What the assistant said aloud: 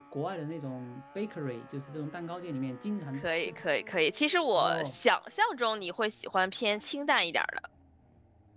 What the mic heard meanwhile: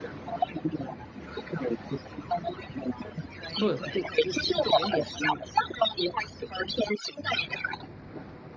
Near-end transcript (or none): 不，这这是甜点。嗯